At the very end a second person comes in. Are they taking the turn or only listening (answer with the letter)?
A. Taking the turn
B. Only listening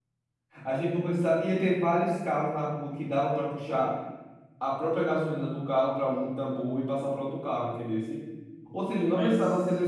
B